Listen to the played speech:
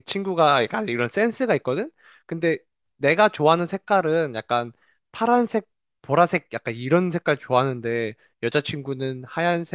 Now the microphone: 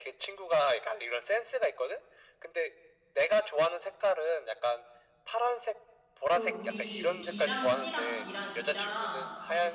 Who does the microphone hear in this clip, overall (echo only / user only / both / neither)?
both